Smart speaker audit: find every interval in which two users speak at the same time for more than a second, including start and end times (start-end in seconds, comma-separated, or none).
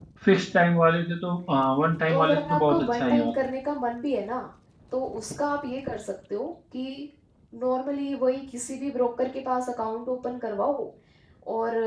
2.1-3.3